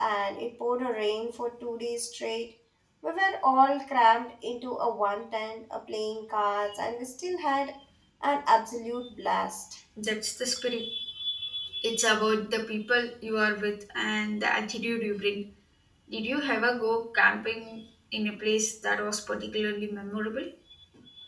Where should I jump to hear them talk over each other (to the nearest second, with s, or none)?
none